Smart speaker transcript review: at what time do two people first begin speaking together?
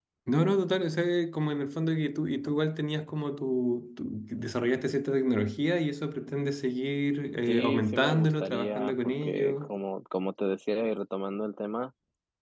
7.5 s

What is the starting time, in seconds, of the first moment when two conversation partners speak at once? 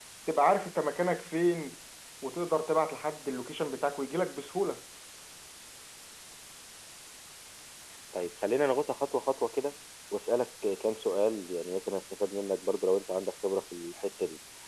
none

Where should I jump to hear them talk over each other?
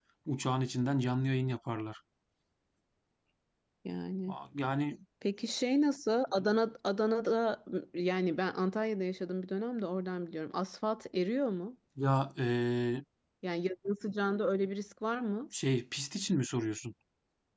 none

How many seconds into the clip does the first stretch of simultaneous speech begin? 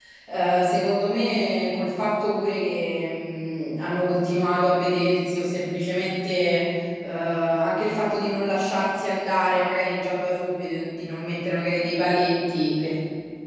none

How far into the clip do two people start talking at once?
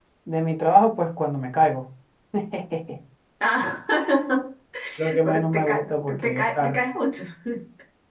5.2 s

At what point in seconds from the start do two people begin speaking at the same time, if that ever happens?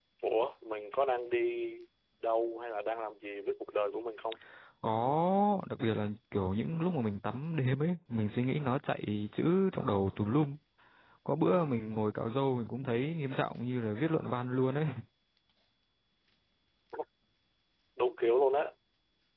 none

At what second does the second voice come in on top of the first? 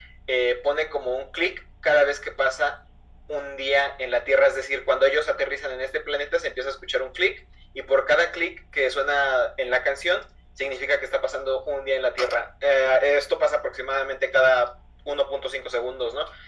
none

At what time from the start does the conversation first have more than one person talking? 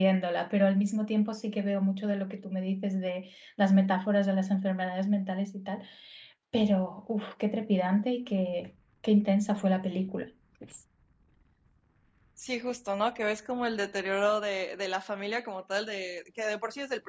none

